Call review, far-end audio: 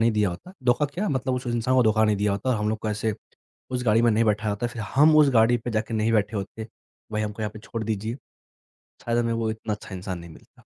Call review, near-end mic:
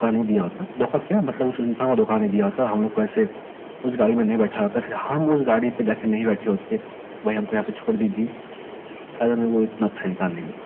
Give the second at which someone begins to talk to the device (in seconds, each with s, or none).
none